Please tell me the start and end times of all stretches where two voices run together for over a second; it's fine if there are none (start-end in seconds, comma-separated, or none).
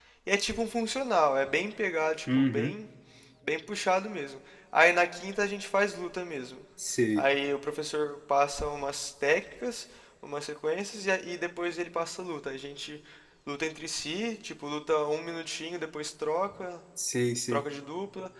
none